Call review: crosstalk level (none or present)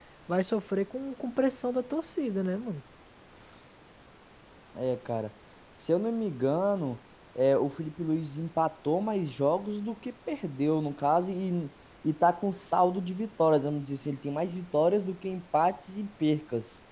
none